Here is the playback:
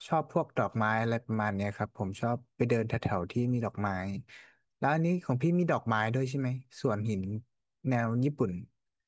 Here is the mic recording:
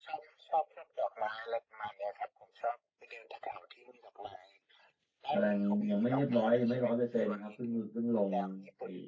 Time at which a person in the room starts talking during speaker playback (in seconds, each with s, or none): 5.3 s